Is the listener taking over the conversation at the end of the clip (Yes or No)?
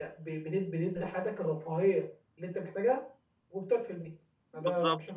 Yes